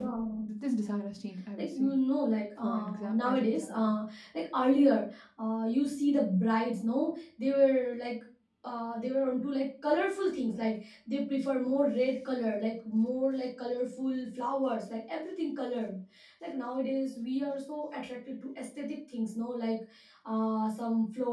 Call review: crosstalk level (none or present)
present